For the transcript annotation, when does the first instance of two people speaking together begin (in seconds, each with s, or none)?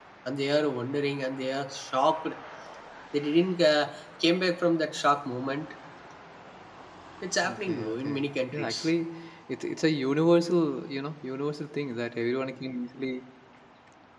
7.4 s